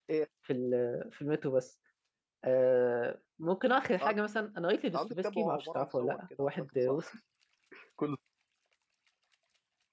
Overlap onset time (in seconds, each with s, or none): 4.9 s